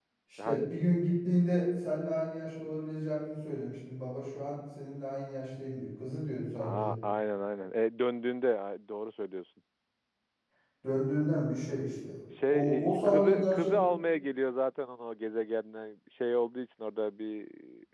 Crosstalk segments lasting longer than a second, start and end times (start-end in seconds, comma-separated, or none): 12.5-13.8